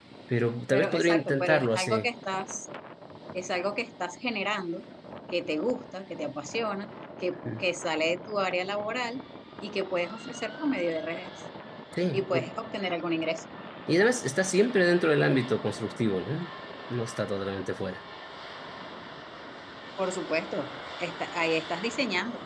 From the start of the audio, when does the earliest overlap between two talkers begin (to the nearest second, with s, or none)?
1 s